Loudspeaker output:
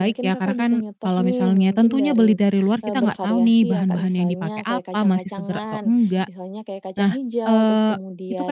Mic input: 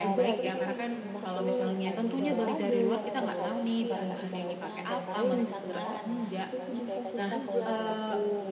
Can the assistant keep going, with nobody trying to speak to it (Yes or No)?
No